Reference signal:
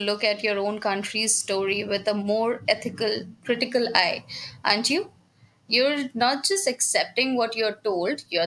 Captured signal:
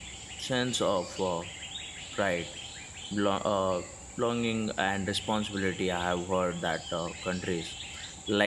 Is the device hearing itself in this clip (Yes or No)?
No